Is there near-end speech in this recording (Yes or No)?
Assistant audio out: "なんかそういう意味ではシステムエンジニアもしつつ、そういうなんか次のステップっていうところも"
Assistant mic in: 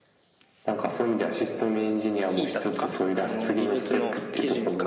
Yes